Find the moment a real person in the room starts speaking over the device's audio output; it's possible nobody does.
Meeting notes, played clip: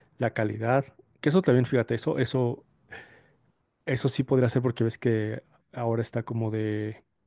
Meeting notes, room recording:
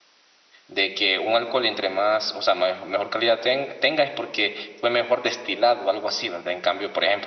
0.7 s

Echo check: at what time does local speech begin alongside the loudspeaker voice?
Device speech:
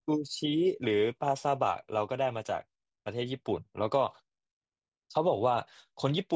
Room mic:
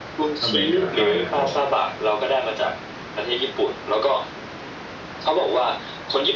0.4 s

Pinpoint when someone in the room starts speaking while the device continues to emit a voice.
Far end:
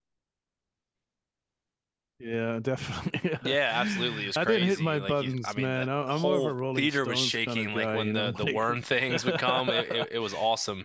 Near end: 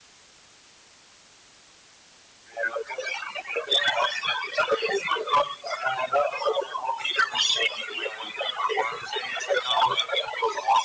none

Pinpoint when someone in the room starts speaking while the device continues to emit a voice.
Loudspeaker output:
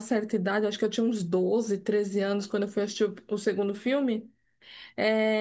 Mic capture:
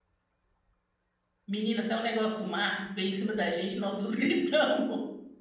1.5 s

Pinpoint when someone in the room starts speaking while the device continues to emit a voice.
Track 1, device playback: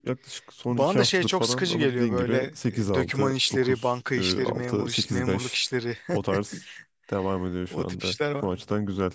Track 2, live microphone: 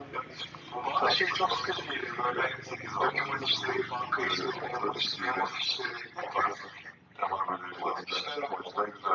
none

